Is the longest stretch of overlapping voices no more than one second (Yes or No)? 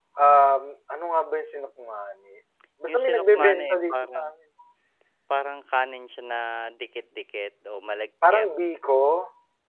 No